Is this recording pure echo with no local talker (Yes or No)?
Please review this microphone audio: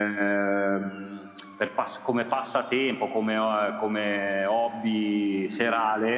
No